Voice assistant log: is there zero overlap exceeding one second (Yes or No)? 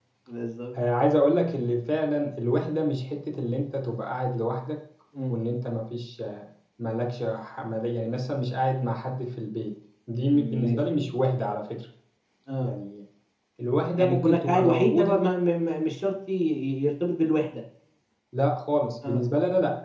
No